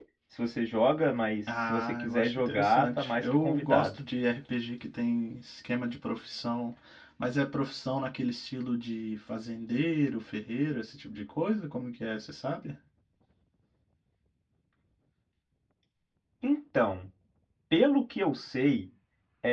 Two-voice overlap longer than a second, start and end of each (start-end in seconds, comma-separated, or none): 1.7-4.0